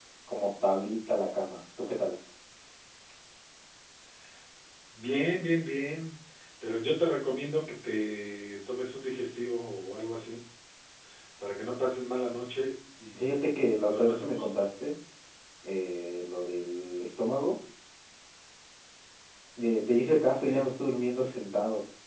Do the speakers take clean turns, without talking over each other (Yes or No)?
No